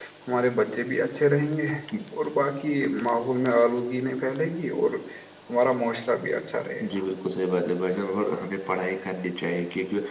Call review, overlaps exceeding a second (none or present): none